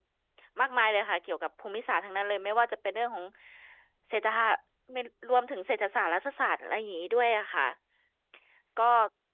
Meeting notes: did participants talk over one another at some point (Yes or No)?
No